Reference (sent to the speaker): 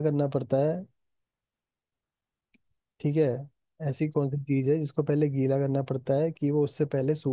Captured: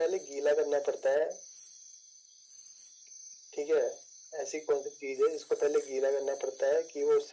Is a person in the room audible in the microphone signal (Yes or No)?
No